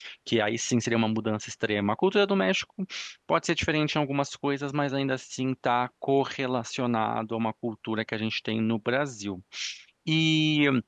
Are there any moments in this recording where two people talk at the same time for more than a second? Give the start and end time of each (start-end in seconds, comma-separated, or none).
none